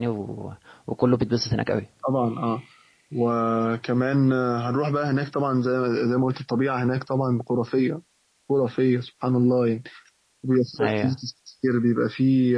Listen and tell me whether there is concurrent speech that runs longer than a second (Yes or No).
No